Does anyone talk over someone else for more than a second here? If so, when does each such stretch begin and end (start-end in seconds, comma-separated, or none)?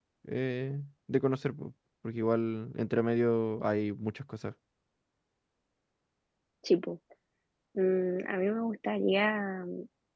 none